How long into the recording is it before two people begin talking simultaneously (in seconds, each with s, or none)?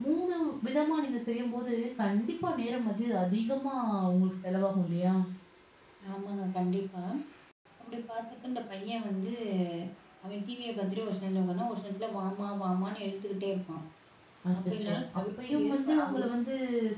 14.7 s